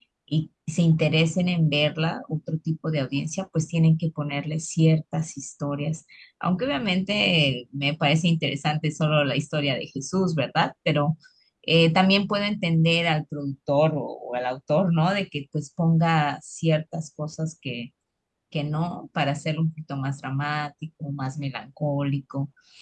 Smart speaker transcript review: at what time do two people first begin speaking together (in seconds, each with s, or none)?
none